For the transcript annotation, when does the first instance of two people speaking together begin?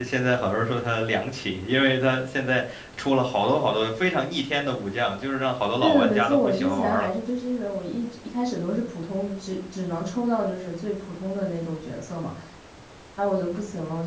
6 s

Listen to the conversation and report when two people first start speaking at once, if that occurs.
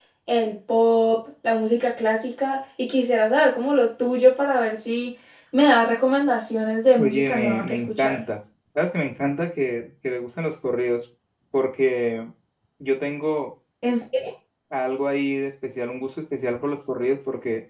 7 s

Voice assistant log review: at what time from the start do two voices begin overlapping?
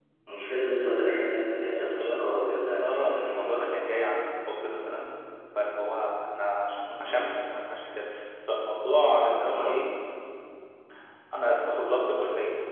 2 s

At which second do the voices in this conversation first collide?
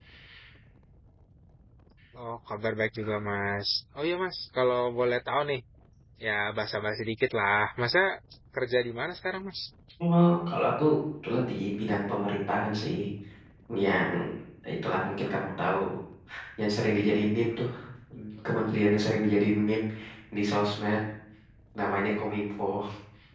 none

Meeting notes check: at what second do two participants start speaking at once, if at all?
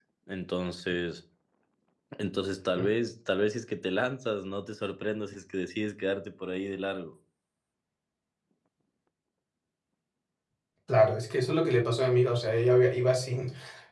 none

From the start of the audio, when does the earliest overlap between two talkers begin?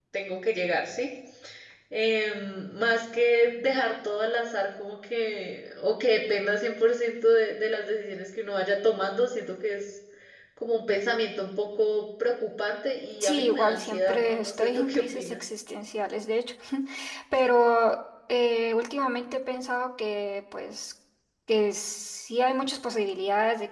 13 s

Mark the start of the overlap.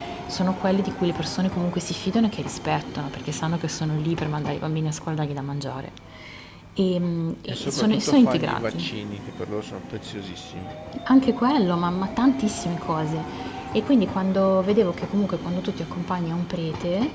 7 s

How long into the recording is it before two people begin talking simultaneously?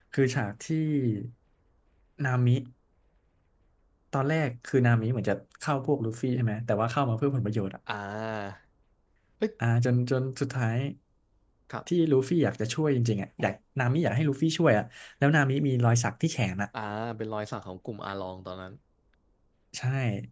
none

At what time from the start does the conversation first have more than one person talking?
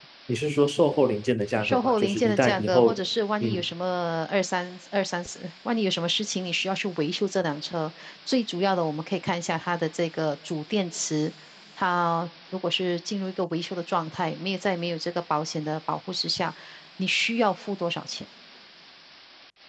2 s

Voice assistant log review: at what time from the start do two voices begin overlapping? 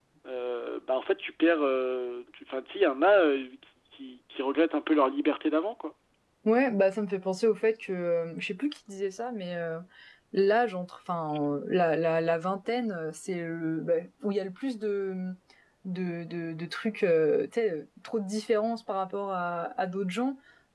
none

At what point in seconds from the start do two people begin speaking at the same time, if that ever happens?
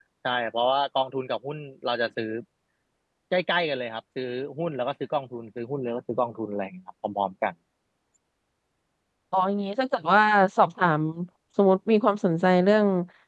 none

